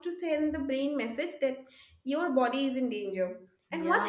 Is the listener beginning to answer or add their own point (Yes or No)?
No